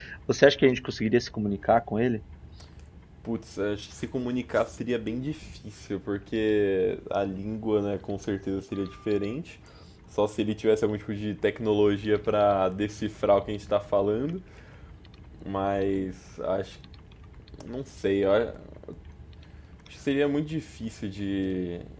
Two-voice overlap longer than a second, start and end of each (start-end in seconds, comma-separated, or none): none